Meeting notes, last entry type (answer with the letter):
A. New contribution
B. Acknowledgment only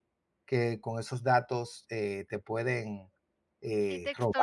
A